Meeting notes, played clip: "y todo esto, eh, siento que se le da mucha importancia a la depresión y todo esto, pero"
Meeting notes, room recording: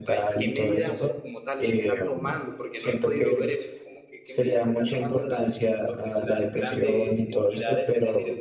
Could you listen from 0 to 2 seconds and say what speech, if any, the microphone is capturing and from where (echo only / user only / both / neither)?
both